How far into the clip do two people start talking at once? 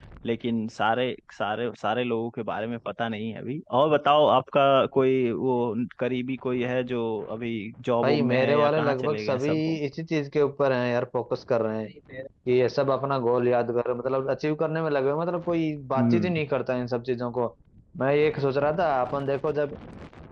8.0 s

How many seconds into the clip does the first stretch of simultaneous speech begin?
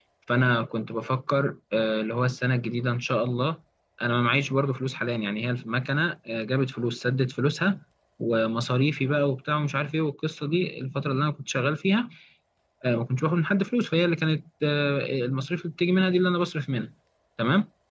none

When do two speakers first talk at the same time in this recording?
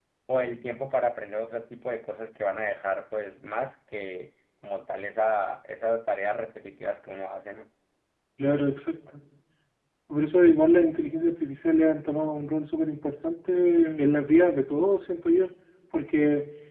none

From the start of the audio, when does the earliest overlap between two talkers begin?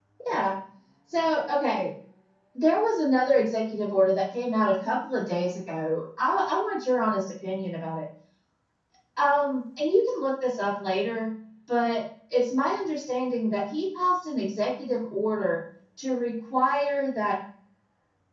none

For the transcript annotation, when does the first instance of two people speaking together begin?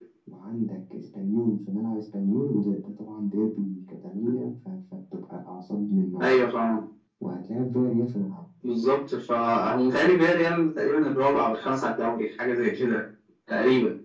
none

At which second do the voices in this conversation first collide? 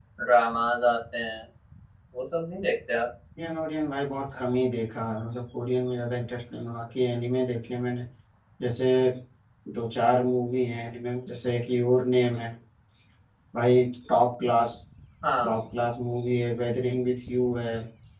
none

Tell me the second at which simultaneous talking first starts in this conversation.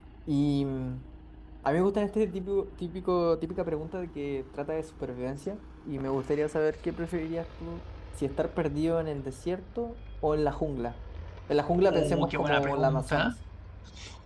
11.8 s

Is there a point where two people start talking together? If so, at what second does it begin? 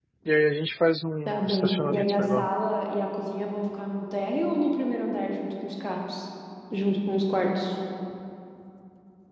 1.3 s

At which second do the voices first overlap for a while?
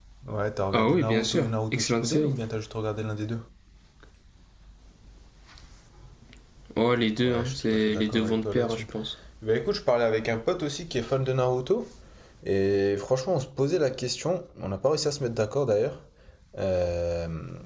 0.7 s

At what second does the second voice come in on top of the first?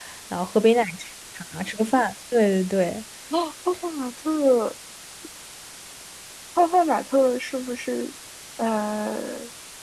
none

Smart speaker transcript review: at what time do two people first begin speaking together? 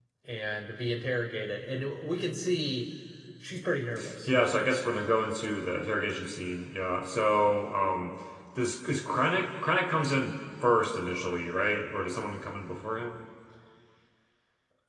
none

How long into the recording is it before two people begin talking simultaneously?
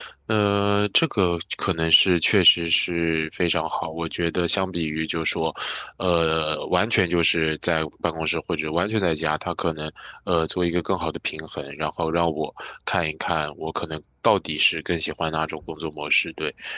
none

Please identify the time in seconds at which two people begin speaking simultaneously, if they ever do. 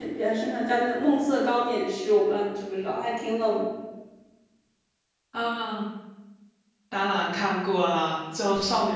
none

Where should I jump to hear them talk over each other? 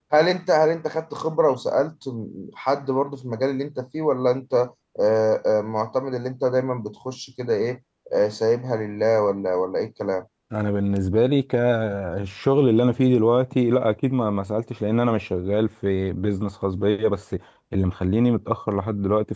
none

